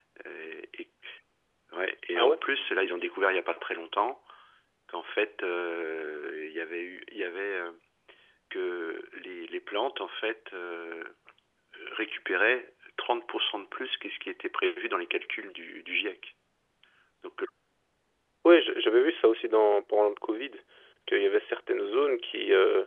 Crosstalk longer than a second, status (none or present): none